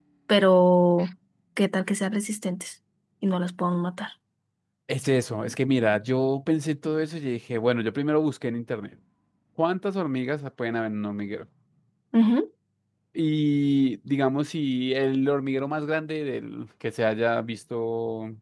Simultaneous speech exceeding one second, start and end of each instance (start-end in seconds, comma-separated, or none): none